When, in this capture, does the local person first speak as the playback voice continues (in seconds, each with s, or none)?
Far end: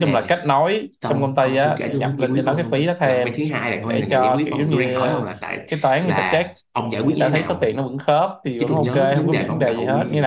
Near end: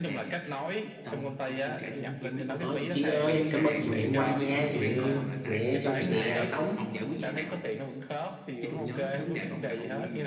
2.5 s